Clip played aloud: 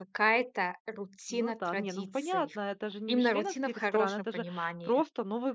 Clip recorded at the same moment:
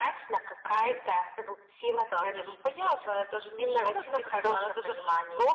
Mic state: echo only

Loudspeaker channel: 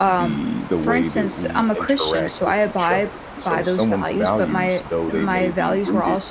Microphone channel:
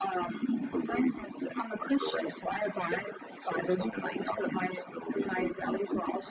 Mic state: echo only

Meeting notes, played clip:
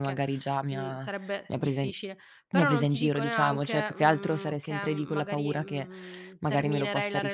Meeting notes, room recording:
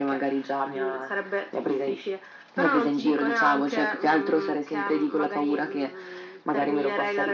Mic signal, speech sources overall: echo only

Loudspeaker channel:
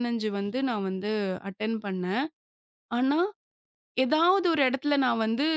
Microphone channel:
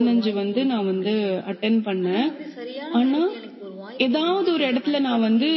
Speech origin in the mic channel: both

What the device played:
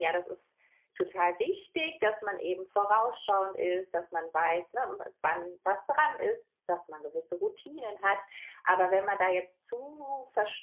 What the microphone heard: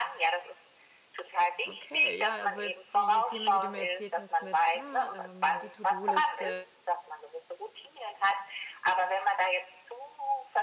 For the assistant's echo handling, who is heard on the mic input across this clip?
both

